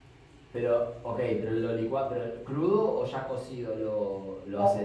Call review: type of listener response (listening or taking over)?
taking over